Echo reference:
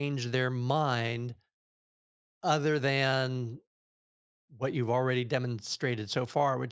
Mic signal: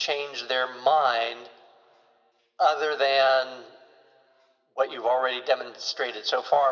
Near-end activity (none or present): none